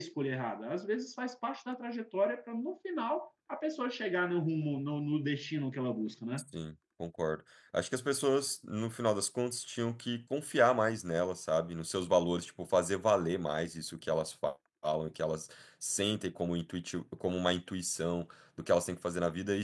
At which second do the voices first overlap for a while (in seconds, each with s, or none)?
none